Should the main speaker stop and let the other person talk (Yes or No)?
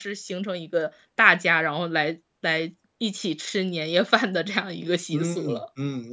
Yes